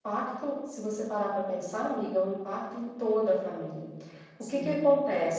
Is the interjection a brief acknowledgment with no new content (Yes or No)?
Yes